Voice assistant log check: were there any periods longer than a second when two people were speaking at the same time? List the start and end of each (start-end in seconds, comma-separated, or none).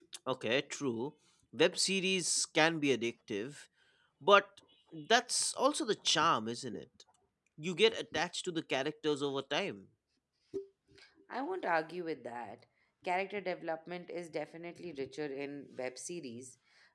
none